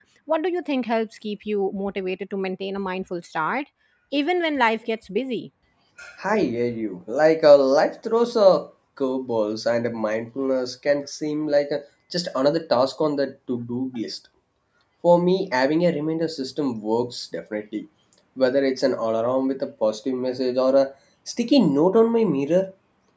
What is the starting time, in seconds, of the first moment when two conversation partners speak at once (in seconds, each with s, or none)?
none